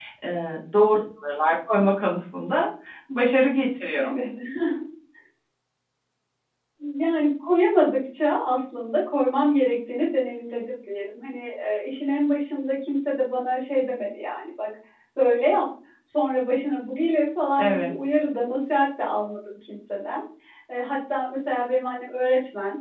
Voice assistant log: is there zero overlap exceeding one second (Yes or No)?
Yes